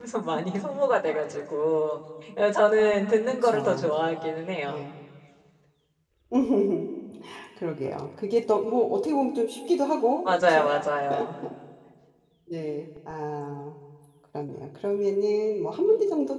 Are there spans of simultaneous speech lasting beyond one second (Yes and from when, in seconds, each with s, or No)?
No